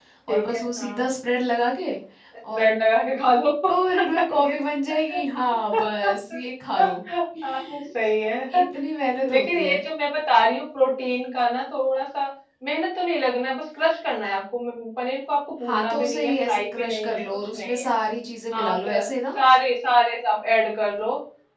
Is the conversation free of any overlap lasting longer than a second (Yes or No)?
No